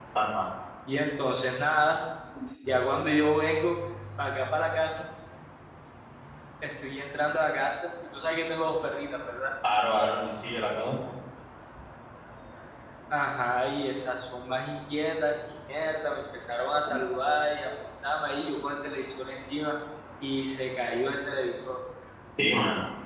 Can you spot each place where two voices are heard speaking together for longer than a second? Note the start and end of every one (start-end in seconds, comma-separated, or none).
none